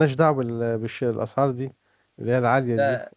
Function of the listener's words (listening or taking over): taking over